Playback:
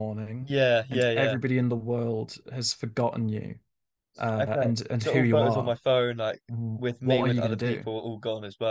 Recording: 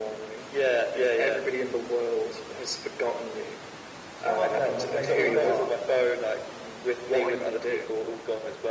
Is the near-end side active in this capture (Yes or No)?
Yes